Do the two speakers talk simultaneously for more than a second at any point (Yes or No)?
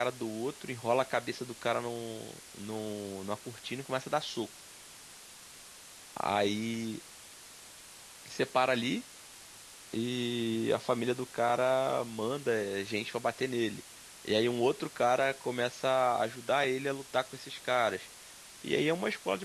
No